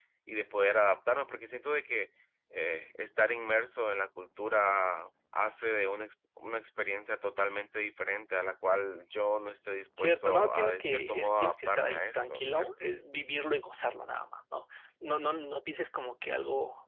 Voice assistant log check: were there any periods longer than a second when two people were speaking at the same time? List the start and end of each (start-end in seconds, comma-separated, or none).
10.0-13.0